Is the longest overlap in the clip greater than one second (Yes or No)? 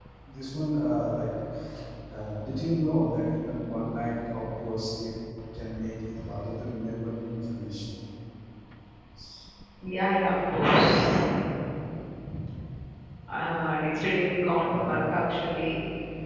No